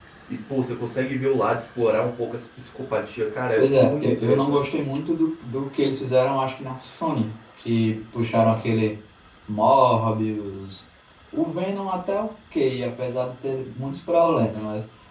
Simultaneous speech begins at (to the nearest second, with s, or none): 4 s